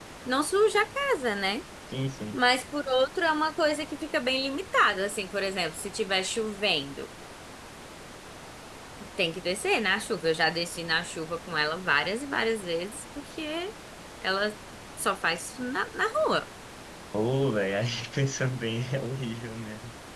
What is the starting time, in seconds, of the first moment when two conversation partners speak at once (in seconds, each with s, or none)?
none